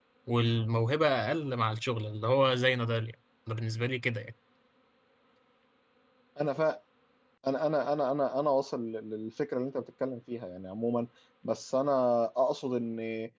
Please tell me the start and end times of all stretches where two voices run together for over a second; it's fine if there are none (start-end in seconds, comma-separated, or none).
none